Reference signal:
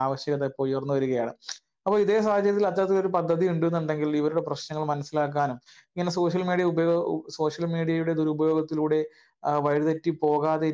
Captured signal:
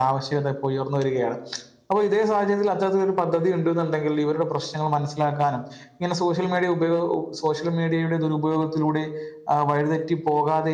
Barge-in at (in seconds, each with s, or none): none